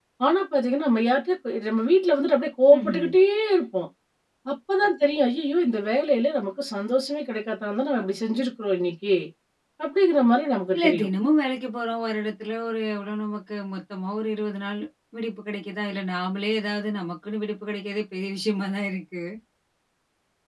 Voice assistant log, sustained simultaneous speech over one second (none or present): none